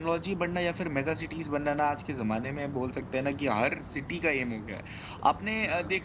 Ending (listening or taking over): listening